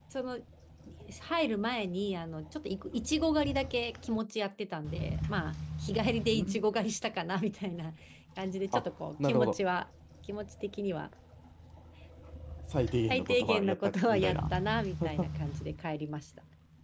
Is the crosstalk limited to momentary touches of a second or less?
No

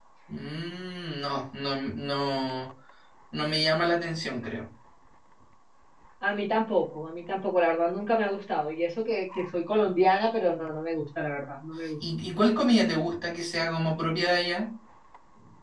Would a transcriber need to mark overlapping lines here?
No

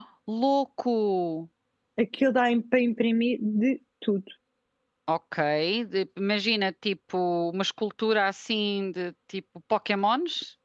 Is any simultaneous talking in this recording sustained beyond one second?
No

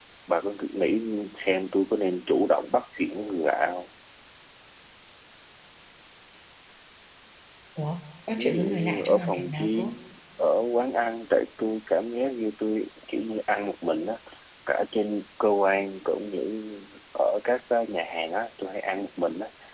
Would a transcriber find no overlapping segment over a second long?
No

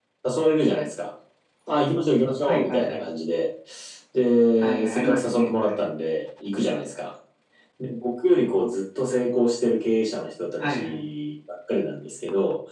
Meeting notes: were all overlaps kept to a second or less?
No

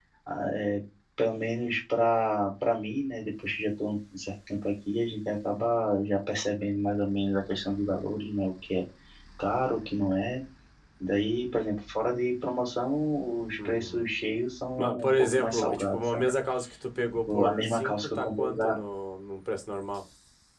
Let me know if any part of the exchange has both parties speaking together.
Yes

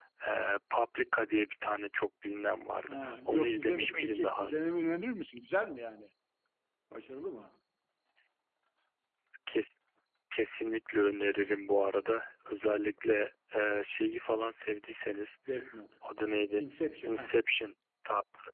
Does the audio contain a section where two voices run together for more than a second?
Yes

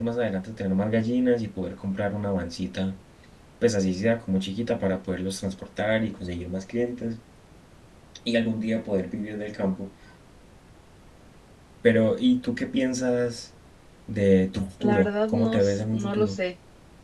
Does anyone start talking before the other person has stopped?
Yes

